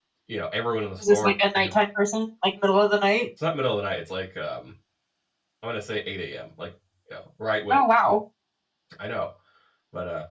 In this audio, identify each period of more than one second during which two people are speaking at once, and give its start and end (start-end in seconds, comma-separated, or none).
none